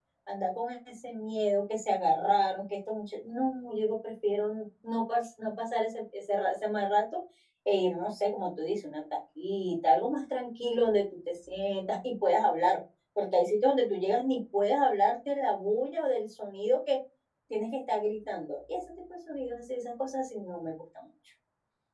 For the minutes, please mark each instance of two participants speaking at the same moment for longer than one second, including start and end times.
none

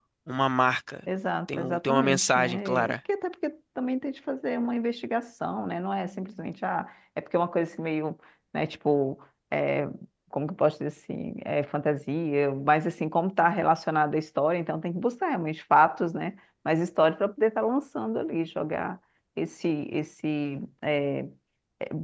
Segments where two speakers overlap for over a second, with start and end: 1.5-3.0

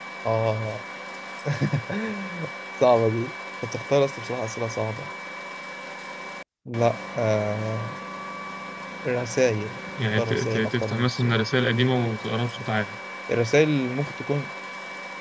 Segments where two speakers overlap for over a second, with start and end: 10.2-11.4

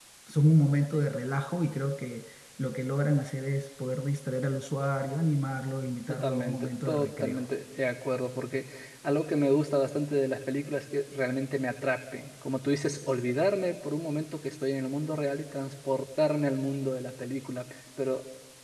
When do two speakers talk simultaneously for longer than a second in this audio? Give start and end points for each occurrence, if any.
6.1-7.5

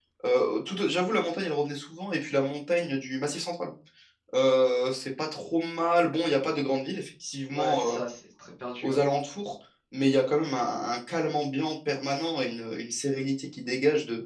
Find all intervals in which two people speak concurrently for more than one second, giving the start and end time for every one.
none

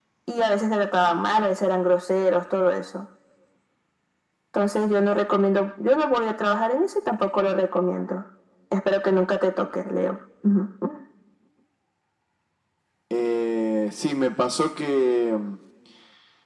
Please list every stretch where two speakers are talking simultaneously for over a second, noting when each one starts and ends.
none

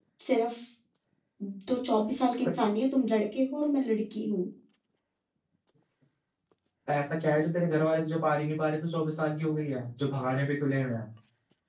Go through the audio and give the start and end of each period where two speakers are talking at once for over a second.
none

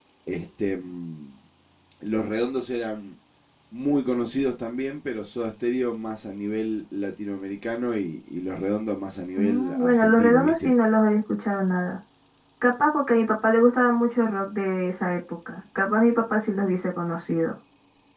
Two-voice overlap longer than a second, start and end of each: 9.4-10.8

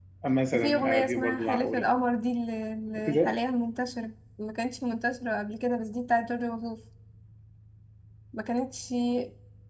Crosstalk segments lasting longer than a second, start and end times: 0.5-1.9

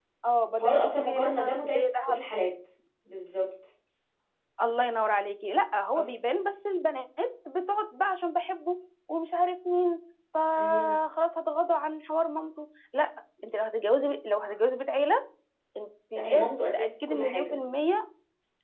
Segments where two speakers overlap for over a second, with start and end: 0.6-2.2, 16.2-17.6

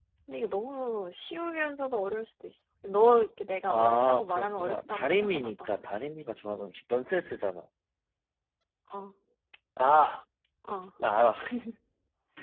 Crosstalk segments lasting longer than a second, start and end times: 3.7-5.5

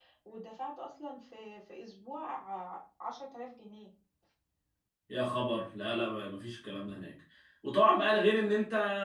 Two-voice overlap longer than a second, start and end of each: none

